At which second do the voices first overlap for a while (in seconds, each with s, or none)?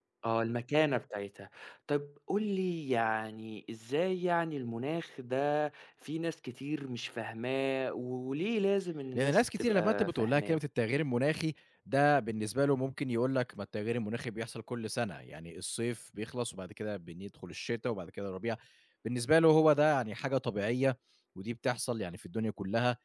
9.2 s